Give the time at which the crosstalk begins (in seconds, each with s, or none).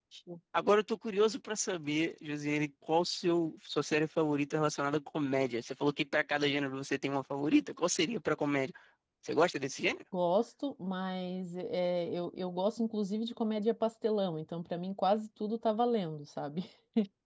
none